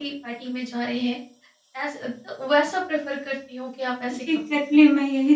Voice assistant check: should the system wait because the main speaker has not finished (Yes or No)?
No